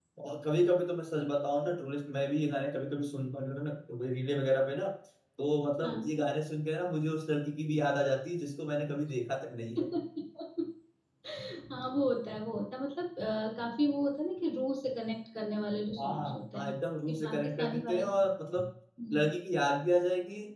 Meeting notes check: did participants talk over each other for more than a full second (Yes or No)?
Yes